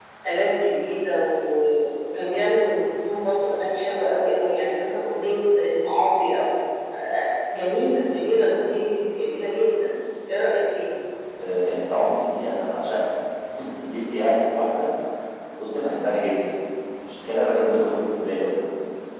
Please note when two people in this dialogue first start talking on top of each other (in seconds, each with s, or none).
none